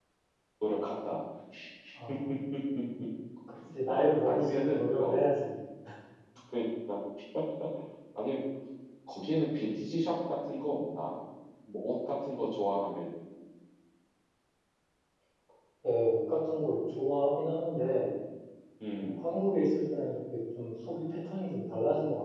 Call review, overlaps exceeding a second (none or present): present